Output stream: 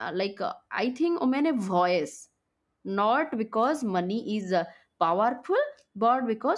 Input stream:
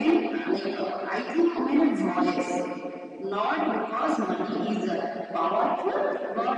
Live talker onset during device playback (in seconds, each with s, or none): none